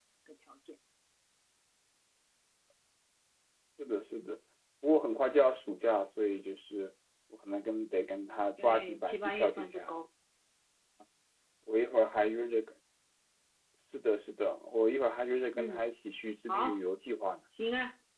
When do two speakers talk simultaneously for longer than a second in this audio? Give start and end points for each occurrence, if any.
8.6-9.9

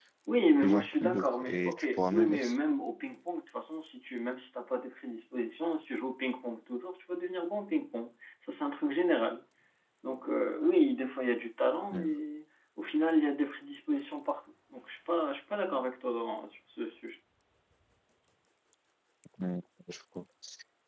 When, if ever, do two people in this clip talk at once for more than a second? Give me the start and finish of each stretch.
0.6-2.6

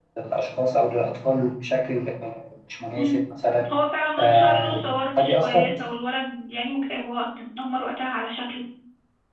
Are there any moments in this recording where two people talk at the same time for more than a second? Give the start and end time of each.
4.2-5.6

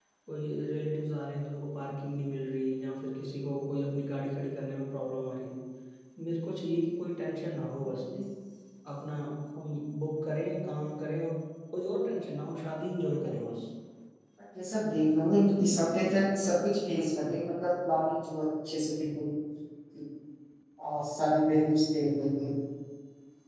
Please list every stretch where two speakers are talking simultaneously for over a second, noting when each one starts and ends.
none

